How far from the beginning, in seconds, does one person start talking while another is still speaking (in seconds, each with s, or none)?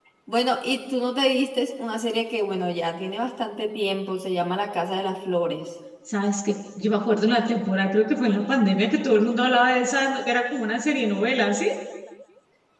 none